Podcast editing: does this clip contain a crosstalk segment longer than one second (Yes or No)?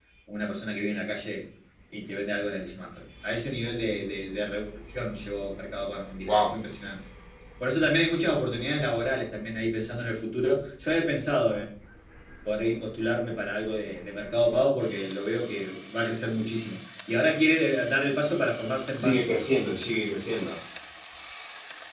No